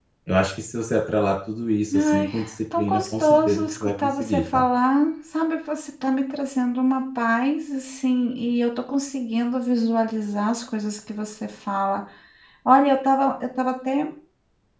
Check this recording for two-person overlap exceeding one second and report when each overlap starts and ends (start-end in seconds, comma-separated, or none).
2.8-4.7